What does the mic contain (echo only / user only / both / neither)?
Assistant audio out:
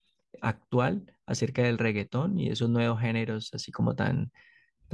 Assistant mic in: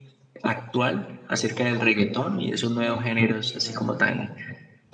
both